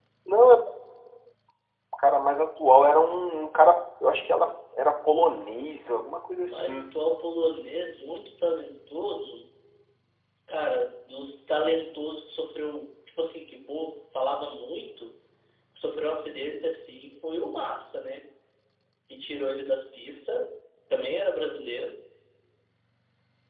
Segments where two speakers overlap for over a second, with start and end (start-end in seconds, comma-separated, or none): none